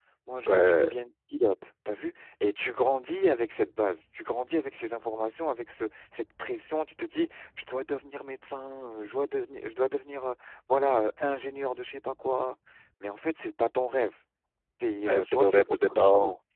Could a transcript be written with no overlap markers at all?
No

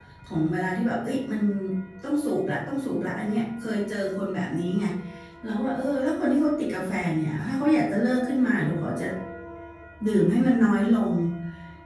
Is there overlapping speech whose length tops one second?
No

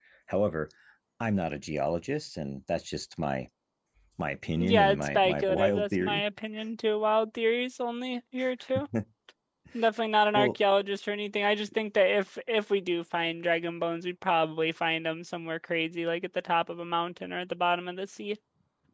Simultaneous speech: Yes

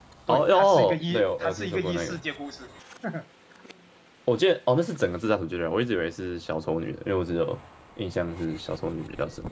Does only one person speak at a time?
No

